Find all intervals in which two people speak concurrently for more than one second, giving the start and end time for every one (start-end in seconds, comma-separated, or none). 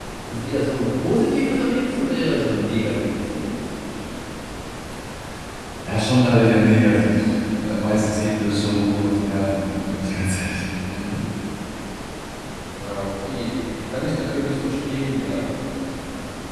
none